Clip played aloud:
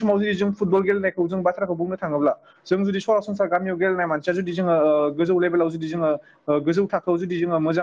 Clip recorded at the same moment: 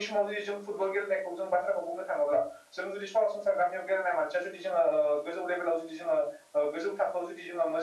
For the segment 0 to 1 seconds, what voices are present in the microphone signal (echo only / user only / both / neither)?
echo only